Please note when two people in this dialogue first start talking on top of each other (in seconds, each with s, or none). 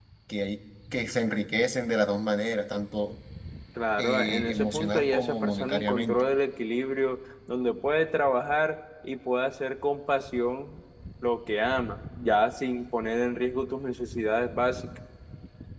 4.0 s